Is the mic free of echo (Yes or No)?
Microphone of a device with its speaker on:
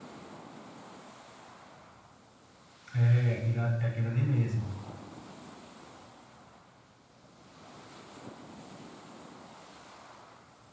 Yes